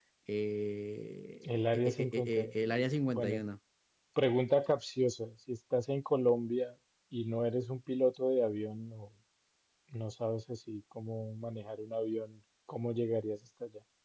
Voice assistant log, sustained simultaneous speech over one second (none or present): present